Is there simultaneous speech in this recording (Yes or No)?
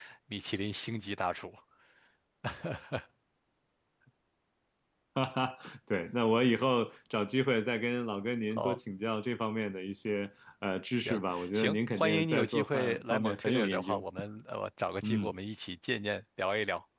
Yes